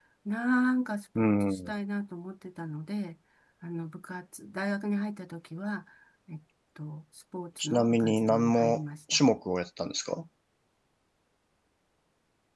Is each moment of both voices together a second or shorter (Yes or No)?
No